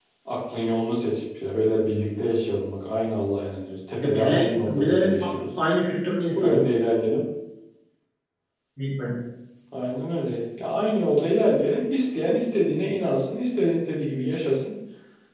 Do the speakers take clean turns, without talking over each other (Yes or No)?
No